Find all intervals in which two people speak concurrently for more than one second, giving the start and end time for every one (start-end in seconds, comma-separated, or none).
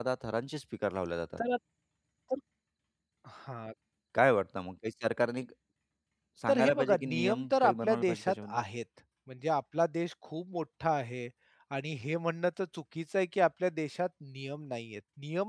6.5-8.6